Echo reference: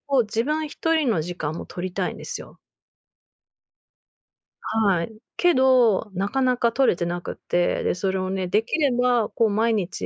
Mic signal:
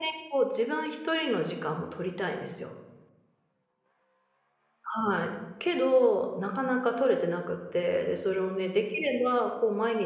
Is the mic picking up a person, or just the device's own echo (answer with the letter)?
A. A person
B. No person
B